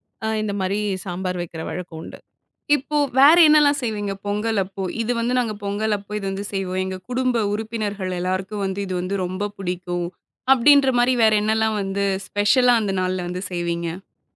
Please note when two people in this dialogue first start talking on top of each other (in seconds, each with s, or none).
none